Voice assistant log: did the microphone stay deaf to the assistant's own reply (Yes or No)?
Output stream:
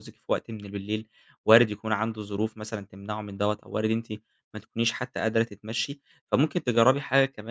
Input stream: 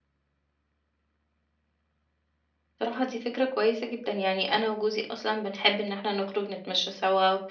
Yes